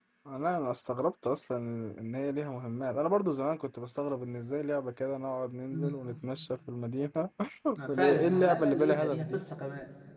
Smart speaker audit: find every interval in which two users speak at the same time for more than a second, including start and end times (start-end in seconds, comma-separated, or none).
7.9-9.2